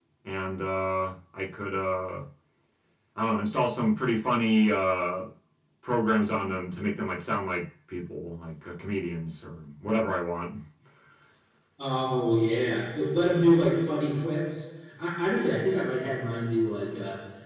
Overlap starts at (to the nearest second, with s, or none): none